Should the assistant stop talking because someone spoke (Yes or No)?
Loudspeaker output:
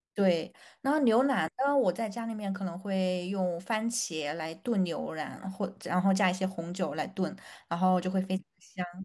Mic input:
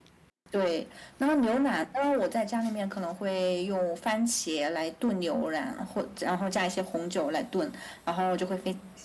No